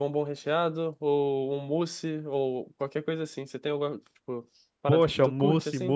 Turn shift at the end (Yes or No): Yes